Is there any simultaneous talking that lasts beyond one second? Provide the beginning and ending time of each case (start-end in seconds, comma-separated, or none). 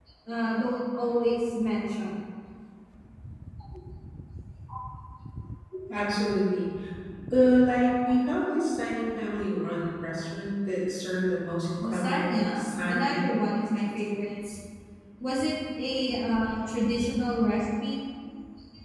11.8-13.3